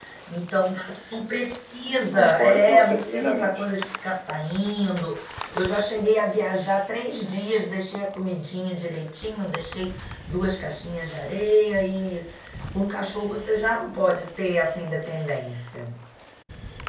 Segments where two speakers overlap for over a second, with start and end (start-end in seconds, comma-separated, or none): 2.1-3.6